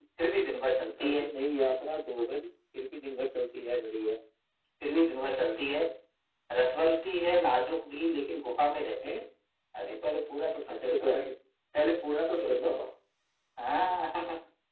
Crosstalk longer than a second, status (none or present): none